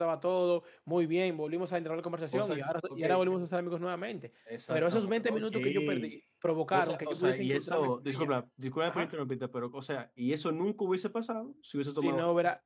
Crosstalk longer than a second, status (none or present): present